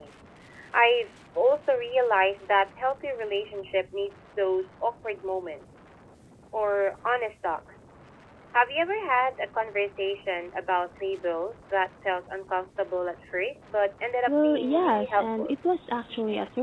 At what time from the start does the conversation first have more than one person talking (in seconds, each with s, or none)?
14.3 s